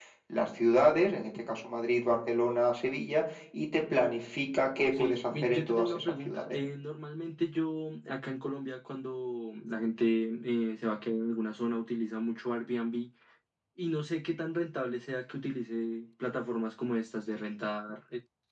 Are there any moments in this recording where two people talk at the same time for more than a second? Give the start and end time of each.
4.8-6.6

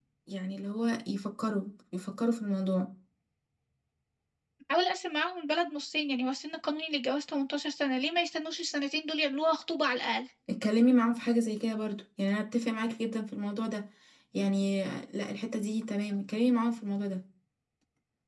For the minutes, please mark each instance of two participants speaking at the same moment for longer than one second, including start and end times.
none

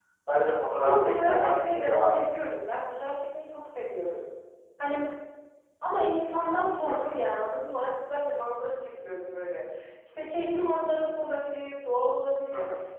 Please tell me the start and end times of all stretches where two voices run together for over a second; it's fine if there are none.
0.8-2.2

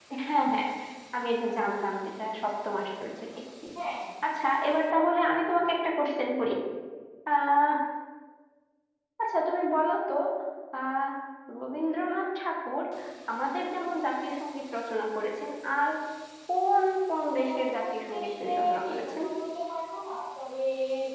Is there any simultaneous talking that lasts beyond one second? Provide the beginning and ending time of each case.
17.3-19.2

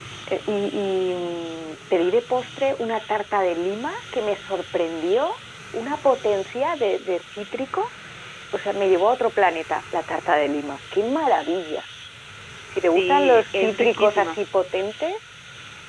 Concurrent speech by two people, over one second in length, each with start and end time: 12.9-14.4

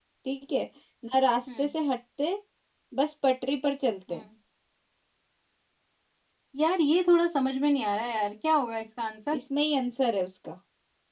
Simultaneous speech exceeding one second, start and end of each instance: none

